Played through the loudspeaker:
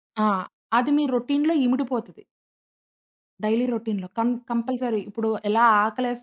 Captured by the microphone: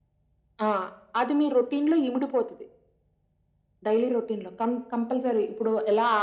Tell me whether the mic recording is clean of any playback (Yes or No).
No